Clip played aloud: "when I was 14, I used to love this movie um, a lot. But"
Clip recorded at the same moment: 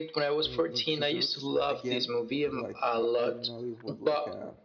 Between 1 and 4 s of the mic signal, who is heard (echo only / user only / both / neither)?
both